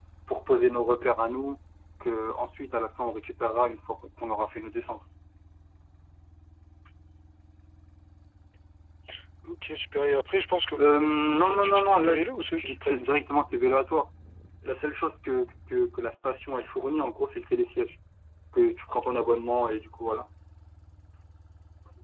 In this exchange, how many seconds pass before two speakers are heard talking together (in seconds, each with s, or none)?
10.8 s